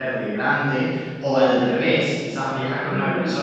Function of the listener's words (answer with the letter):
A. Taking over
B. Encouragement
B